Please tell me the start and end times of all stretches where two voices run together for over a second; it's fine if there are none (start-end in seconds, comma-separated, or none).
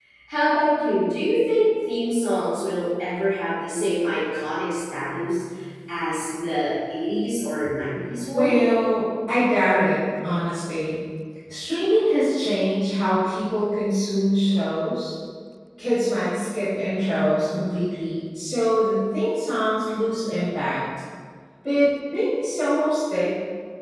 none